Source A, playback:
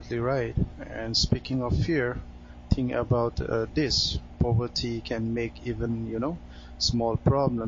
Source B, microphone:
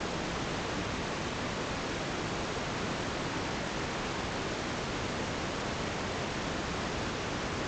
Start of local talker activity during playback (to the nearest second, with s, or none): none